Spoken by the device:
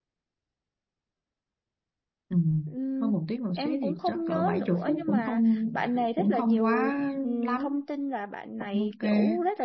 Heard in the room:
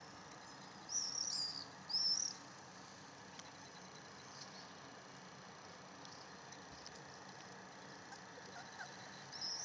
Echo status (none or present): none